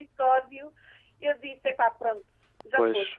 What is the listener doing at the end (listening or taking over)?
taking over